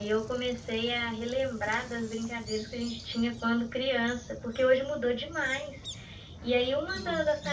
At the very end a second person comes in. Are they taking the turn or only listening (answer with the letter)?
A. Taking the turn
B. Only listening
B